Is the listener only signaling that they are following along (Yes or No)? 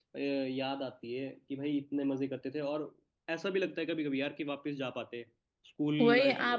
No